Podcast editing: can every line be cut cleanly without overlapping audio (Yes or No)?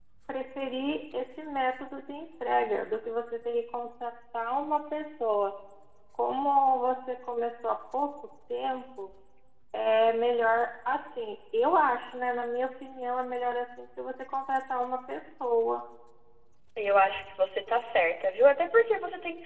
Yes